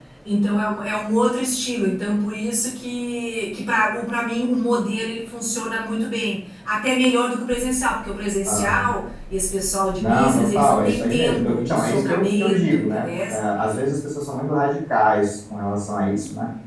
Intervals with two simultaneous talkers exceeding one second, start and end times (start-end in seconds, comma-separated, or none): 10.0-13.1